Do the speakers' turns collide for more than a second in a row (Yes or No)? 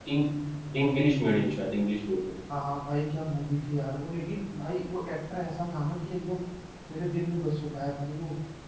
No